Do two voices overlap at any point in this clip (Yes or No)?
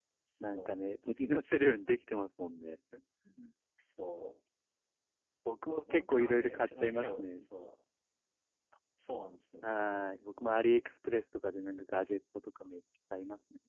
Yes